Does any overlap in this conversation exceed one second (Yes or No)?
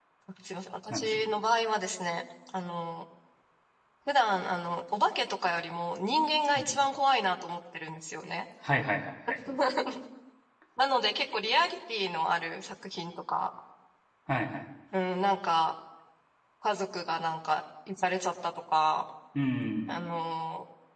No